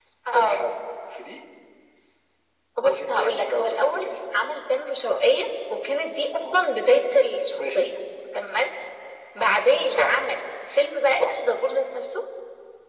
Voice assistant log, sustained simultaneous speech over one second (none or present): present